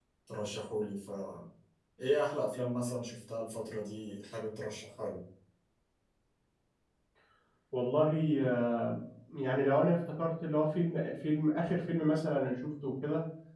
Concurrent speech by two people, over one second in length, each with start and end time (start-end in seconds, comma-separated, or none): none